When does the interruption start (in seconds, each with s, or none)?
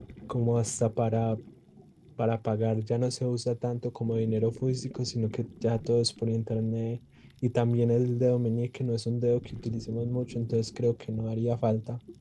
none